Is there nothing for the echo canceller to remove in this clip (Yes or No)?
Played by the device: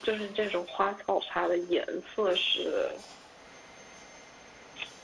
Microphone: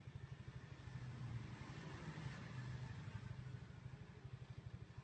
Yes